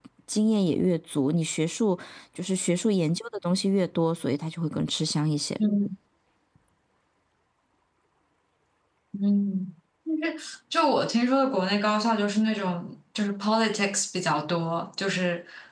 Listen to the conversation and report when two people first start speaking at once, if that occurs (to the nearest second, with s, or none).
none